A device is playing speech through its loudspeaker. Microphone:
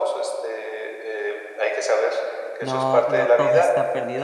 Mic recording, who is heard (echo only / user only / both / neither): both